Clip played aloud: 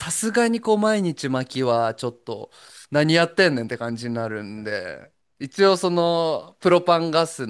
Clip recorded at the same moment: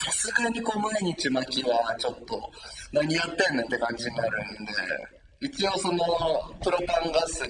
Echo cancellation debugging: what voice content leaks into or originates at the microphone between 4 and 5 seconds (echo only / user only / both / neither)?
echo only